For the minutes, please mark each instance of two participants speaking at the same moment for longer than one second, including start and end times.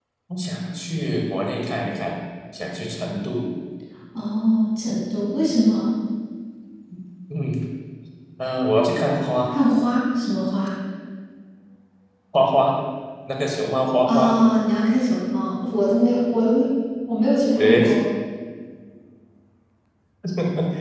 none

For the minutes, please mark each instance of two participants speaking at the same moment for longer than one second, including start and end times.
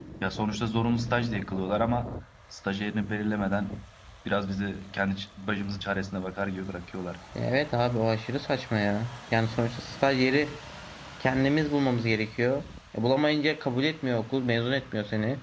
none

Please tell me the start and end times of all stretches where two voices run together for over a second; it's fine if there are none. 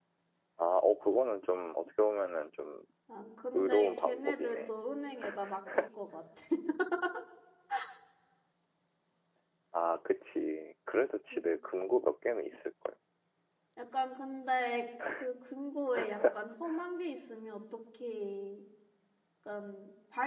3.5-4.7

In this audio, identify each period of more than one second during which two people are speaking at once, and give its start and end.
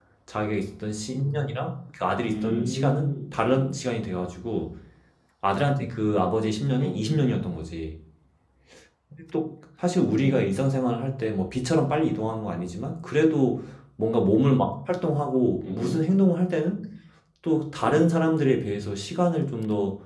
2.3-3.8

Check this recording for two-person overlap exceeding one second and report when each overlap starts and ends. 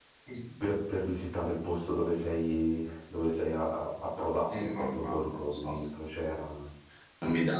4.5-5.8

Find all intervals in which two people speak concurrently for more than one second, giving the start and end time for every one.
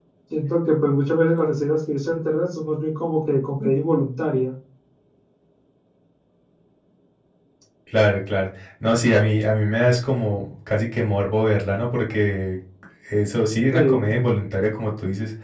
none

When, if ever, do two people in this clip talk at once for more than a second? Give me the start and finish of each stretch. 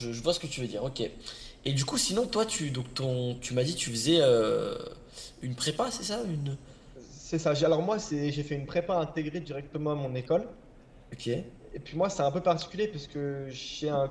none

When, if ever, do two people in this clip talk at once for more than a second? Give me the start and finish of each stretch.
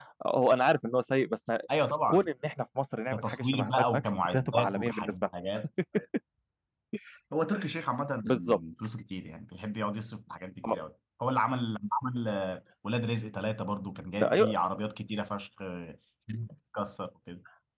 3.1-5.1

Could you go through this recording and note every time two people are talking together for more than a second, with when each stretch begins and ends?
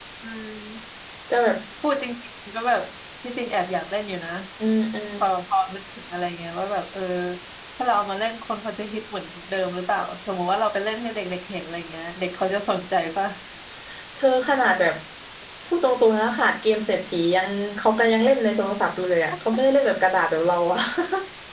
none

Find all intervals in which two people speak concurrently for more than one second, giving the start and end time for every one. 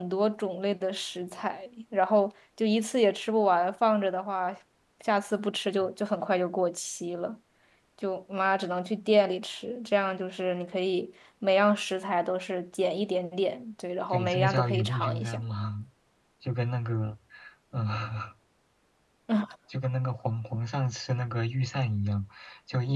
14.1-15.4

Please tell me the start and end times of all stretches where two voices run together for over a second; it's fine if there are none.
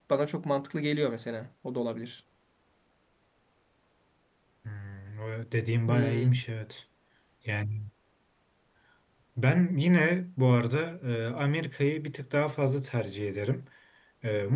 none

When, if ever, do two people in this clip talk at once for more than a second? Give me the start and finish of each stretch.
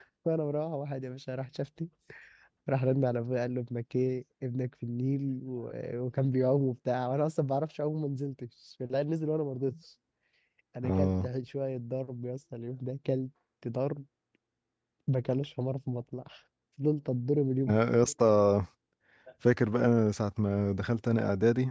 none

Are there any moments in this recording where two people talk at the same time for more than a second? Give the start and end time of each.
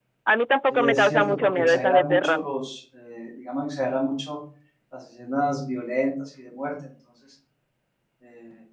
0.7-2.5

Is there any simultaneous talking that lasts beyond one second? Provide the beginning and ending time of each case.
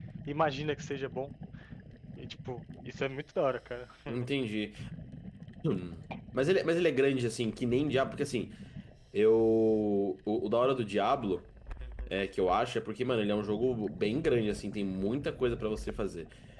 none

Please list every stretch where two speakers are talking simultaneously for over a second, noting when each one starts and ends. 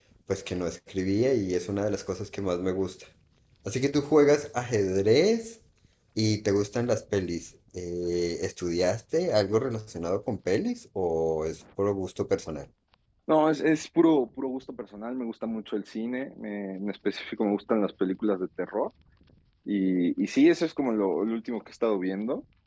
none

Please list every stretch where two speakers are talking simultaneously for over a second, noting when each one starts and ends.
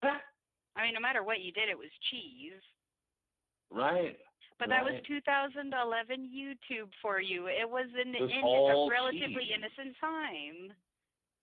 8.2-10.1

